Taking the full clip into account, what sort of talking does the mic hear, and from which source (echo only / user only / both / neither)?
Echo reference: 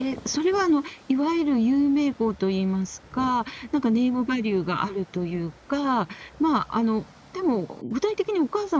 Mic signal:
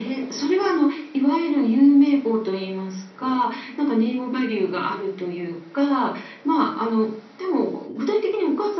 echo only